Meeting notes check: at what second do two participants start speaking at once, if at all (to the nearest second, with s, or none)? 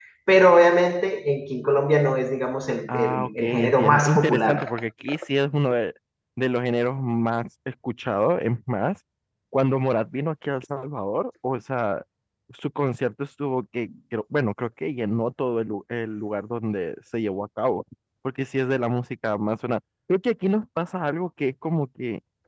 3 s